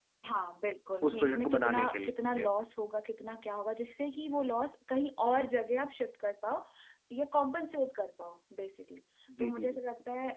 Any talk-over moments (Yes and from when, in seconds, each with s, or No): Yes, from 1.1 s